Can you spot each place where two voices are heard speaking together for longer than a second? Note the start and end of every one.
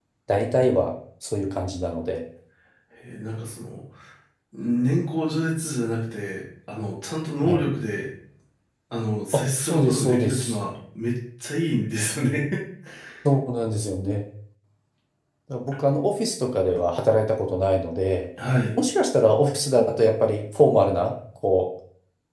9.3-10.5

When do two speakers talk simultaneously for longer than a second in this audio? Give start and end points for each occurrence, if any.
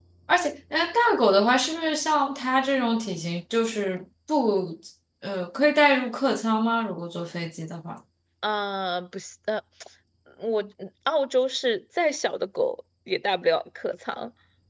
none

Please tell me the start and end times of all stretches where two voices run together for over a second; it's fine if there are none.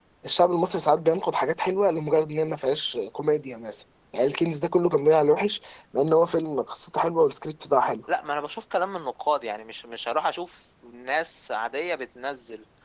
none

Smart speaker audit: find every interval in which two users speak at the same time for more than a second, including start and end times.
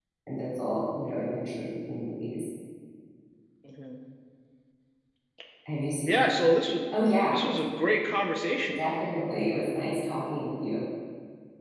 none

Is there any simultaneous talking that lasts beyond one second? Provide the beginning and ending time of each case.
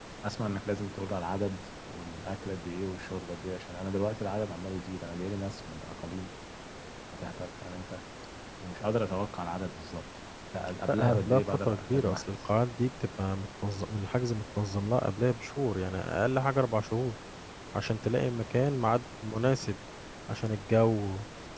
10.9-12.3

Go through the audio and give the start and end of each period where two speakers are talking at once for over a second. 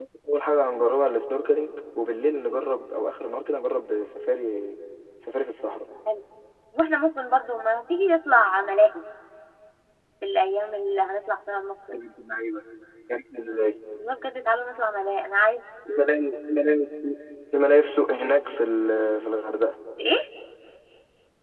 none

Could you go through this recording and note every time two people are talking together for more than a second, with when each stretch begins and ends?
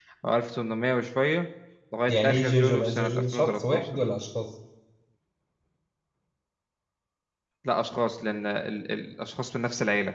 2.1-3.9

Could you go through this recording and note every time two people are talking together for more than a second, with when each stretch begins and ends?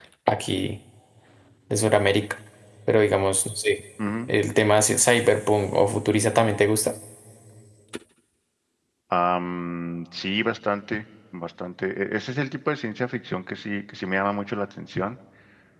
none

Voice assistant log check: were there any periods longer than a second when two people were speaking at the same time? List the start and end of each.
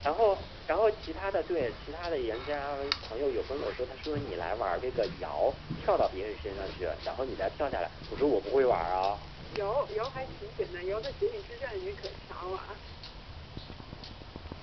none

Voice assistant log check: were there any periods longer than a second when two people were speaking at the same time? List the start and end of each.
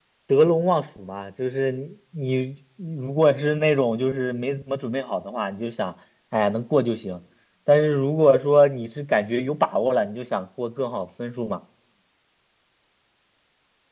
none

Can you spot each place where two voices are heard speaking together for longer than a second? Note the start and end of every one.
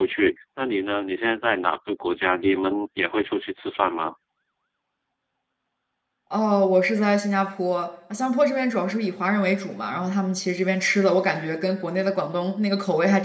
none

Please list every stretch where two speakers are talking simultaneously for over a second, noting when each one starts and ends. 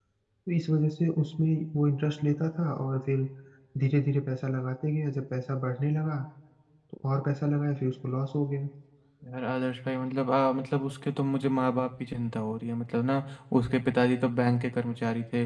none

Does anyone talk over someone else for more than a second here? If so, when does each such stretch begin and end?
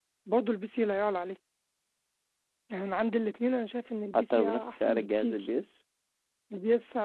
4.1-5.5

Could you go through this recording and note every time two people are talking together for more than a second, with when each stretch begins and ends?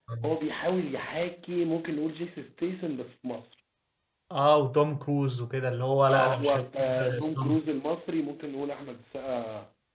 6.1-7.6

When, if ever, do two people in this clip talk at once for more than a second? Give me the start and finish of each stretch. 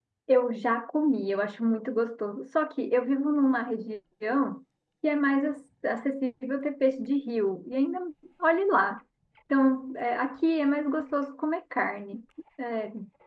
none

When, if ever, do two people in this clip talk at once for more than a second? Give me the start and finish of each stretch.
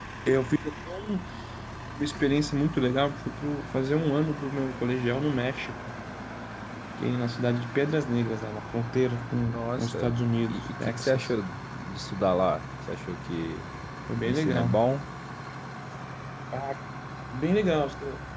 9.5-11.3

